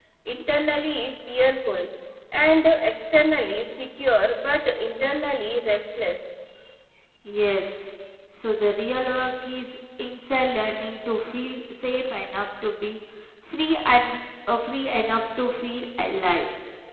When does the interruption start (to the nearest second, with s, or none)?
none